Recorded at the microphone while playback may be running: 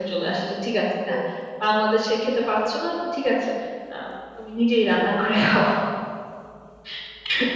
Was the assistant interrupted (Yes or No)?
No